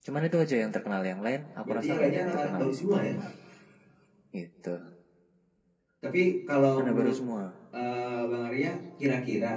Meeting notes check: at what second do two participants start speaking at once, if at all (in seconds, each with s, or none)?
1.6 s